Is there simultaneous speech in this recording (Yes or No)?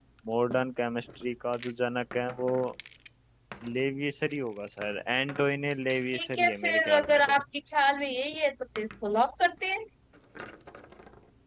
Yes